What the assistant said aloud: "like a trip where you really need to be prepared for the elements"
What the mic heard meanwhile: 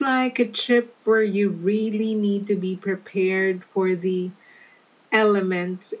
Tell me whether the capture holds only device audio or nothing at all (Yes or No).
Yes